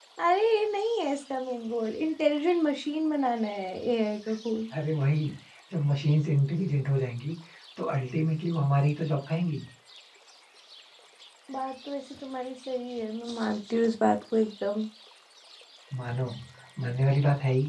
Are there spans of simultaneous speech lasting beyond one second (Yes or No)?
No